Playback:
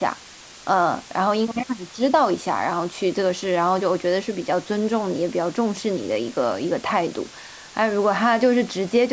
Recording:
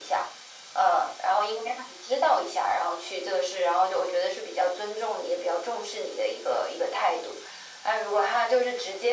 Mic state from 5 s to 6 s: echo only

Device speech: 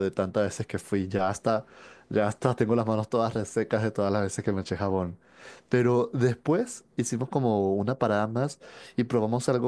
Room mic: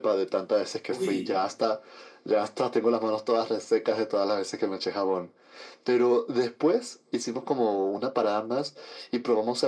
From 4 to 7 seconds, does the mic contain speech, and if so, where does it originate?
echo only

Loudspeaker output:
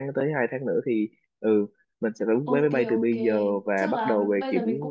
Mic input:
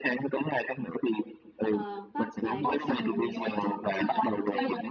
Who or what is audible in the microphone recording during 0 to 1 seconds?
echo only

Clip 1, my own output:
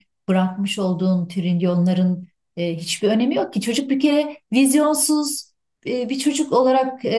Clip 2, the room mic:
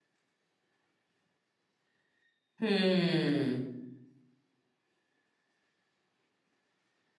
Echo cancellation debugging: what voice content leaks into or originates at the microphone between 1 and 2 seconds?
neither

